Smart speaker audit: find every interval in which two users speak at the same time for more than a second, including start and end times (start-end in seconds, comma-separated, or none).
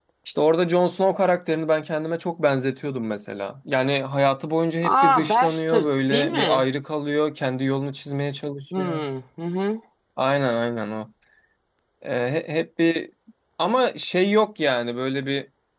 4.8-6.7